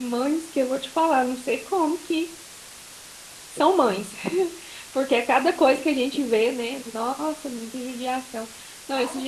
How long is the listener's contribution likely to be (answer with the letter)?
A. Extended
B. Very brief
B